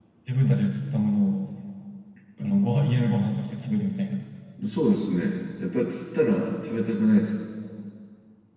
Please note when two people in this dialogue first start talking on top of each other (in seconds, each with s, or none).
none